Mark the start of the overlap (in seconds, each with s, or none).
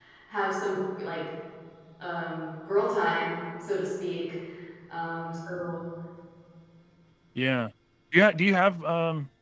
none